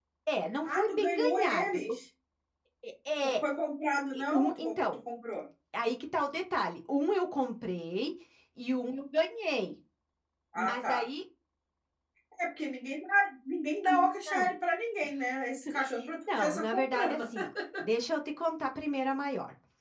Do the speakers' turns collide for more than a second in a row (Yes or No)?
Yes